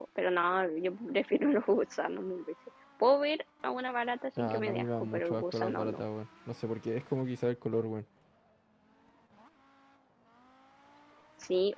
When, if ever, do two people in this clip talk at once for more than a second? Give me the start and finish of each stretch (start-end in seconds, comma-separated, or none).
4.4-6.0